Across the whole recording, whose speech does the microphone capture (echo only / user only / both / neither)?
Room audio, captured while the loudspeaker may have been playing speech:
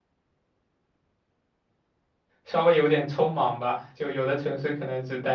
user only